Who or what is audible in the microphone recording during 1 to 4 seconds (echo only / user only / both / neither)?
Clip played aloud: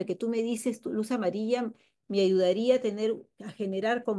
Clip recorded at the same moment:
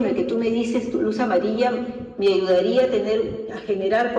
echo only